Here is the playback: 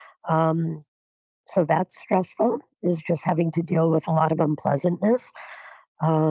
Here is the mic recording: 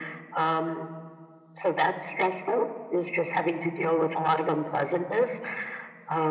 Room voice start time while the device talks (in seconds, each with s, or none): none